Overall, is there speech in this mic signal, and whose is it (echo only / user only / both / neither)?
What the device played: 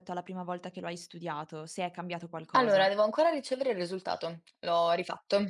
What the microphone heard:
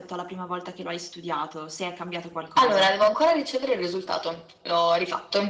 echo only